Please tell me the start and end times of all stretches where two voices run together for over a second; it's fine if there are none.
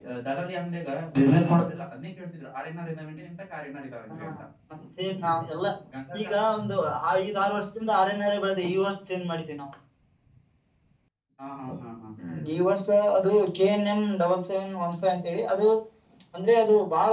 none

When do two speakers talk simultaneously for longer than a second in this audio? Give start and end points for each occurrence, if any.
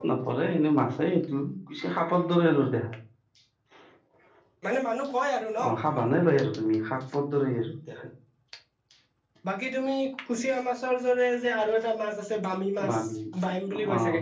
none

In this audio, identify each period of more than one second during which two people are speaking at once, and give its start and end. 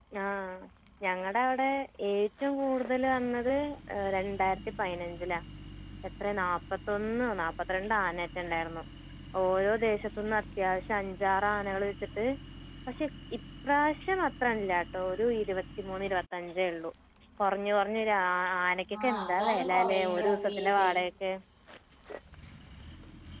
19.0-20.9

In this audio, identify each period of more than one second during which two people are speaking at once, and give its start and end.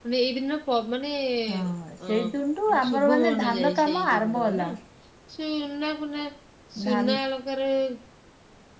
2.7-4.7

